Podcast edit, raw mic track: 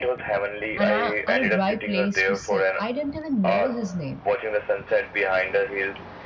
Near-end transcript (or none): and, I, and a dry place to sit. I didn't even know his name.